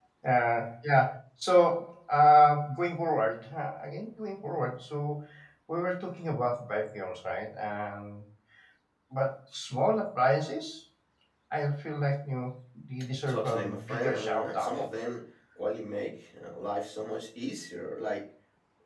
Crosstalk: present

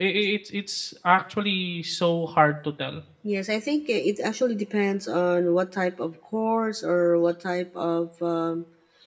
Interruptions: none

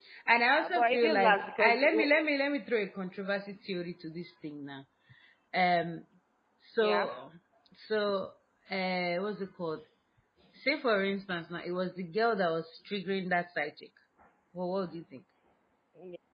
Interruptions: present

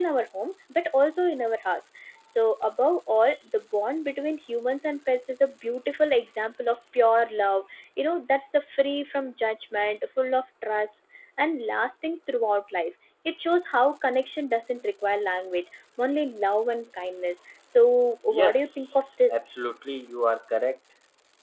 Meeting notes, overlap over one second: present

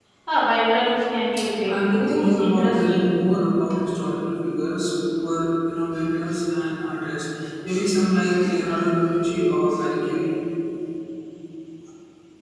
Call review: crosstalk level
present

